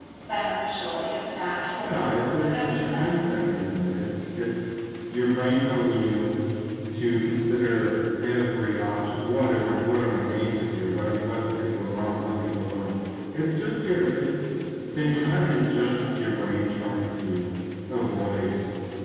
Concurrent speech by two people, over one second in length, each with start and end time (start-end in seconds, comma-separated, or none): 1.8-3.2, 14.9-16.3